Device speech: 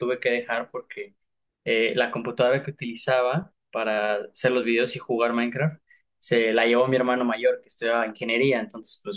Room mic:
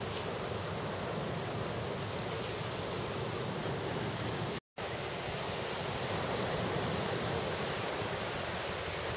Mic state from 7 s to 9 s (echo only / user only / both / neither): neither